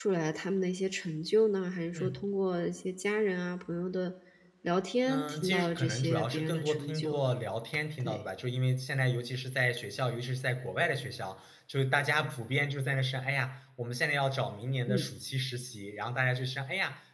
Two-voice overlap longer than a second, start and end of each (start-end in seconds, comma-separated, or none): 5.1-7.2